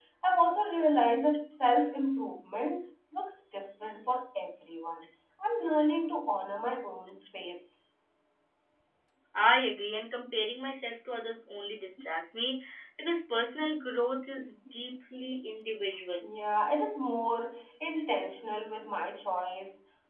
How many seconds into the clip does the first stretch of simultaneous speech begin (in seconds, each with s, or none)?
none